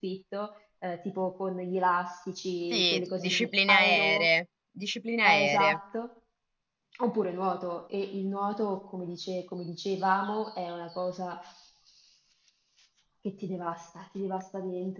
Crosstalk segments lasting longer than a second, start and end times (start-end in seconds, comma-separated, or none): 2.7-4.3